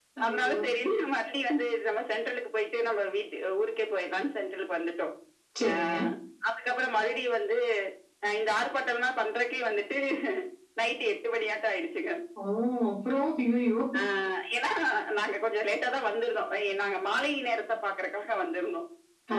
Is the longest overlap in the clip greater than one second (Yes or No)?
No